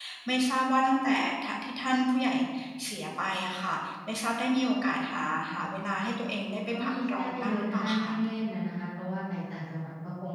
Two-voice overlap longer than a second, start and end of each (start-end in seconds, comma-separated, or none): 6.8-8.2